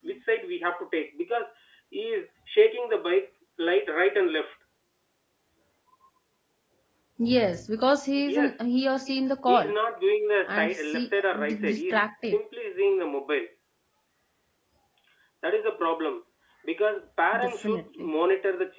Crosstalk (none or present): present